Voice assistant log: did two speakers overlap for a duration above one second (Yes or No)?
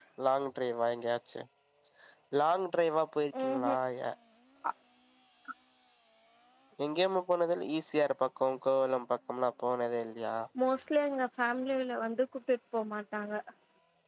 No